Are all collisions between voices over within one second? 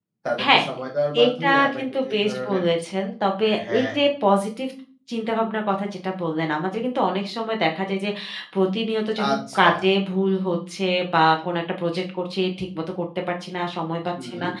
No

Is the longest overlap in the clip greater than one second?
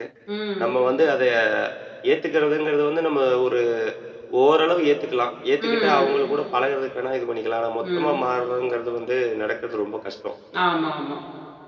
No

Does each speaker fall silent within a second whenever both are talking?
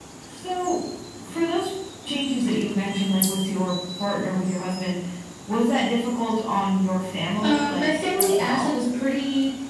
No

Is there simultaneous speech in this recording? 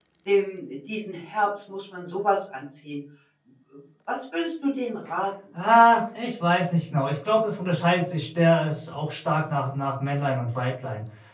No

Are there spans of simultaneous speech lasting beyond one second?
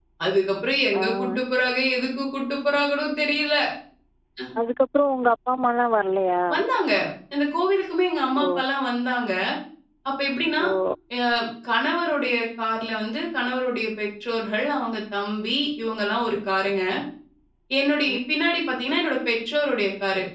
No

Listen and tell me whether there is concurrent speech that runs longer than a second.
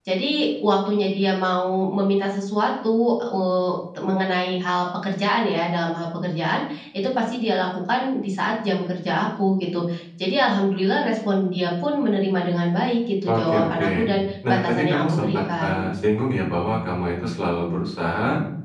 Yes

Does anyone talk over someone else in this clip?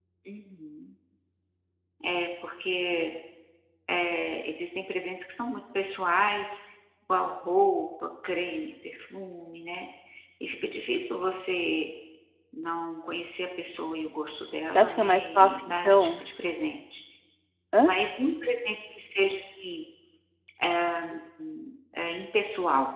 Yes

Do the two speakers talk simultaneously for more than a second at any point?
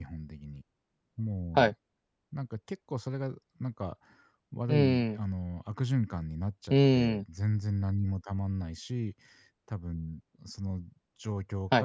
No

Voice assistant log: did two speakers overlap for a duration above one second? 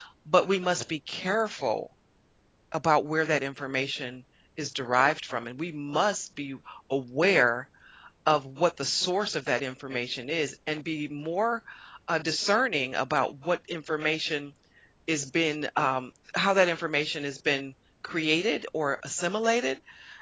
No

